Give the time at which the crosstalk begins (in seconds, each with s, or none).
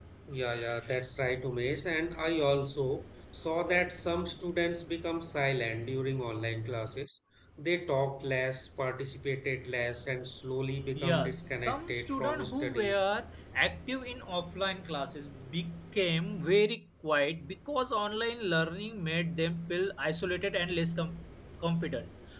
10.9 s